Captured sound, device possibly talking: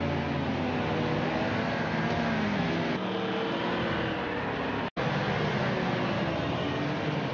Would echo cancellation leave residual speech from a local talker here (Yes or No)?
No